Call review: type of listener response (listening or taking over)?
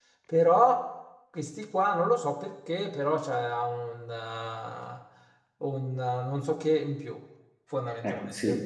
taking over